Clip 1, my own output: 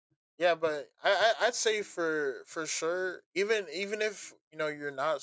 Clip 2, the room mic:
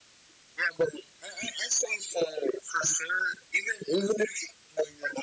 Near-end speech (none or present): none